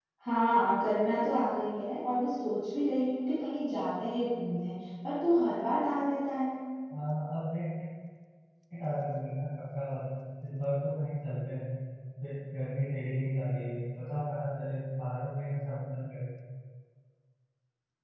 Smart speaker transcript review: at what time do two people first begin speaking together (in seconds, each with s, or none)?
none